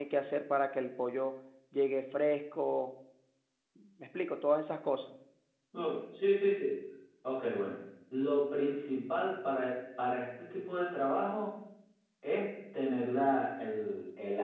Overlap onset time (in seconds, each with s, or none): none